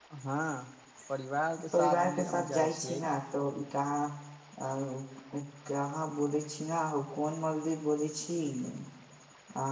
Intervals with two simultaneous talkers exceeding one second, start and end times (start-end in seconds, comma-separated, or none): 1.7-3.0